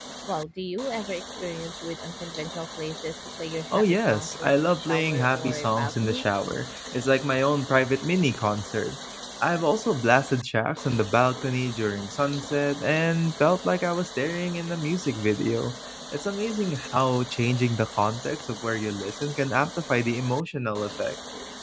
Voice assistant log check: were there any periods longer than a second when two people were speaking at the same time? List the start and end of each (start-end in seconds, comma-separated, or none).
3.7-6.2